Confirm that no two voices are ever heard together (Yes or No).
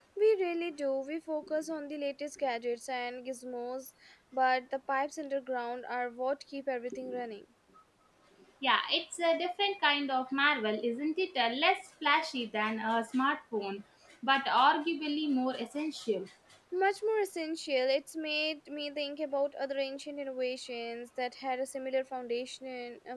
Yes